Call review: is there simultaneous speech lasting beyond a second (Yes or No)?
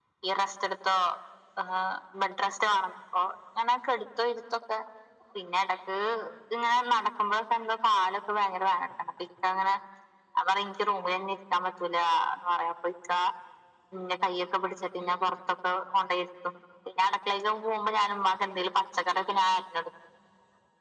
No